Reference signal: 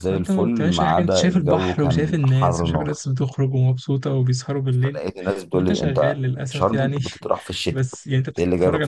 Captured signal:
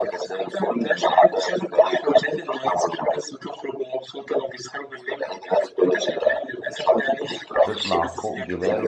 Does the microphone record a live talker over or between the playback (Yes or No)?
Yes